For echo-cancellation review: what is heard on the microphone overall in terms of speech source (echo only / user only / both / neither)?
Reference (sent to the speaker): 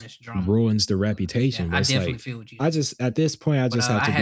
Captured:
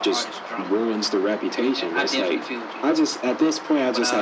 echo only